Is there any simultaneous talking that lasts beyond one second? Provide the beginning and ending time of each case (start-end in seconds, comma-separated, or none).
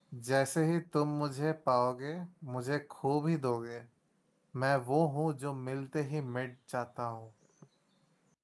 none